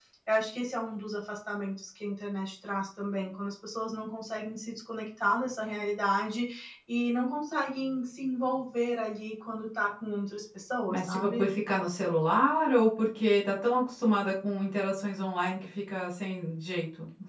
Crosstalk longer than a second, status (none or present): none